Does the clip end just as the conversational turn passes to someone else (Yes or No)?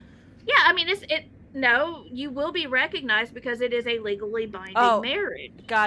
Yes